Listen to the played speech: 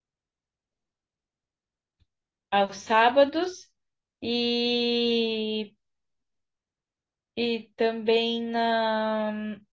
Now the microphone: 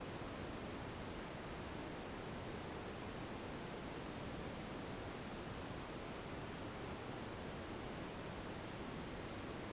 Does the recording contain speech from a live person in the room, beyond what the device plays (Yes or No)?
No